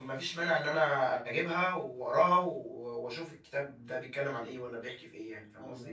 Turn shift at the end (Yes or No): Yes